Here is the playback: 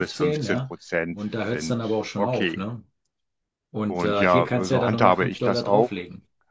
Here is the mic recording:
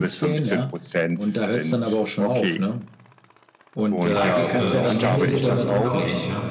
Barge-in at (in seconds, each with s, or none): 4.0 s